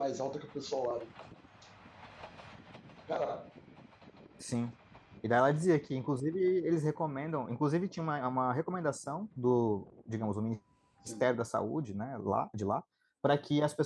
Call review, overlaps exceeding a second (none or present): none